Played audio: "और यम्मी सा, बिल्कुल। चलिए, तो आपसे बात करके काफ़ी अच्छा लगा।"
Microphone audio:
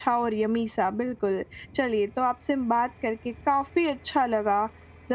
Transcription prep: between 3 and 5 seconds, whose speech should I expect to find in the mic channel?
echo only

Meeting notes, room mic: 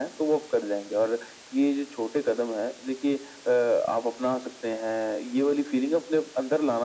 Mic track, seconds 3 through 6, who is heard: echo only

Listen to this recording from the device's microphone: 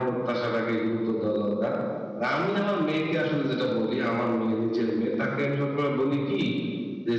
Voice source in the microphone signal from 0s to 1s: echo only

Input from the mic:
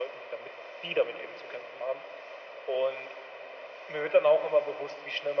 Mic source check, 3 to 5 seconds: echo only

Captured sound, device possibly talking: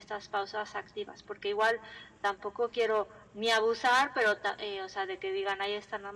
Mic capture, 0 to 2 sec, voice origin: echo only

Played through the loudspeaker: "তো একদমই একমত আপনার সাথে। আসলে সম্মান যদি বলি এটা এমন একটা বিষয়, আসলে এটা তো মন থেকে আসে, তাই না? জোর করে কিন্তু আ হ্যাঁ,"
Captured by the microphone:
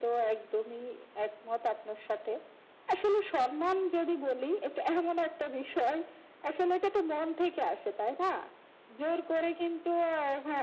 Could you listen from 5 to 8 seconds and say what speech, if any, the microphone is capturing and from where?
echo only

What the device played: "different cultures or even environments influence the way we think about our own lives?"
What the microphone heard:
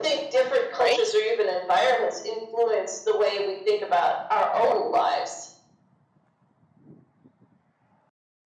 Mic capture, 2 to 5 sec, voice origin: echo only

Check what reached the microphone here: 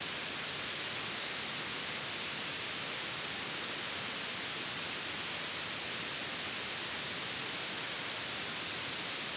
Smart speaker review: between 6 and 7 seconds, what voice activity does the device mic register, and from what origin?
neither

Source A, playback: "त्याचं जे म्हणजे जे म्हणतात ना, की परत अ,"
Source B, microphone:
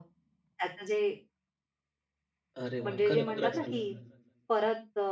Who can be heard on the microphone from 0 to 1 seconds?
echo only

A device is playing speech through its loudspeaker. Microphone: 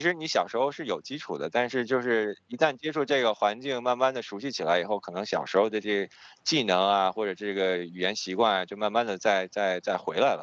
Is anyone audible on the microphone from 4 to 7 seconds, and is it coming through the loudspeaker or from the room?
user only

